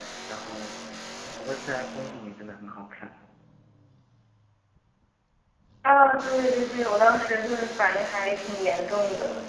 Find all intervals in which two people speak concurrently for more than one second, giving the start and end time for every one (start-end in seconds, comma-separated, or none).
none